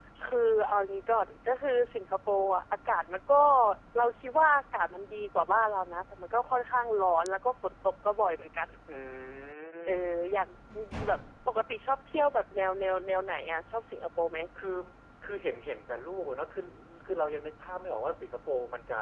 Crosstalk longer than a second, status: none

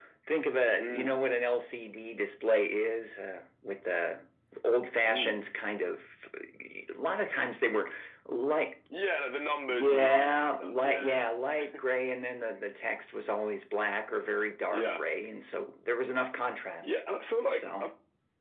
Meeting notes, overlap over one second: present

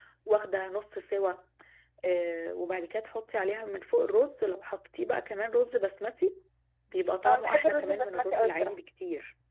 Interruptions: present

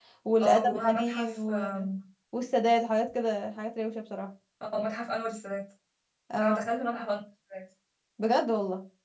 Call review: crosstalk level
present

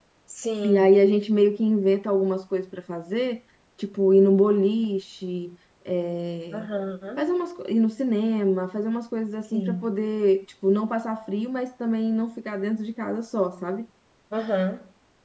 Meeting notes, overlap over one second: none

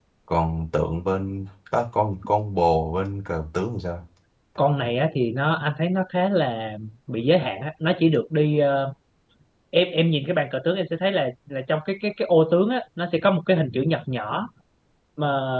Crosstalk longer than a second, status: none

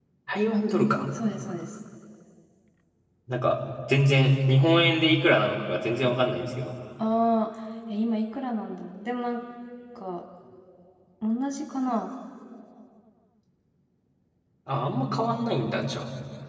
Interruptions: none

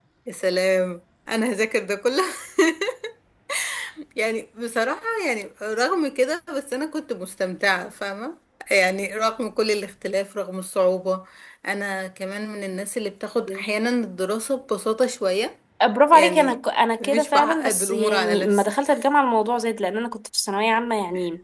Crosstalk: present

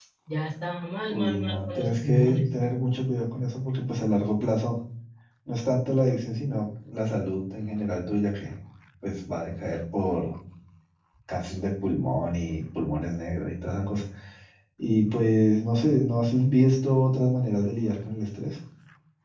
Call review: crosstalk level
present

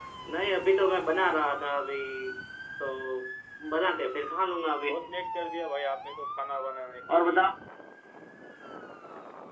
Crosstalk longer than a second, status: none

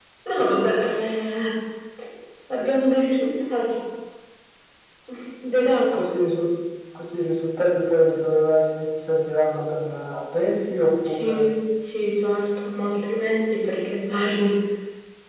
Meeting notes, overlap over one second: none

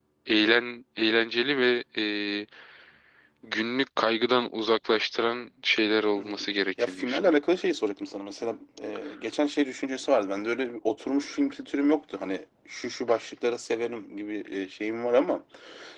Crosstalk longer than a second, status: present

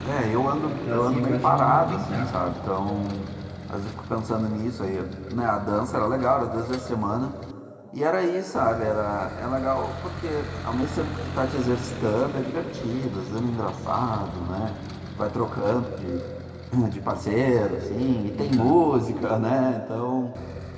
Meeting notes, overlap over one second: present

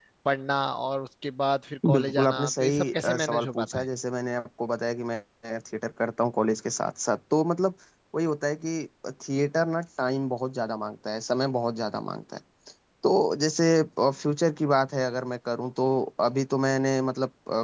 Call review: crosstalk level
present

